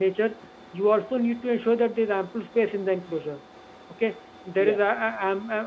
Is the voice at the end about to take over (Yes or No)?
No